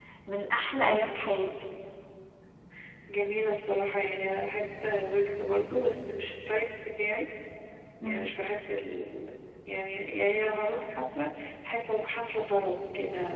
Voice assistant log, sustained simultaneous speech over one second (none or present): none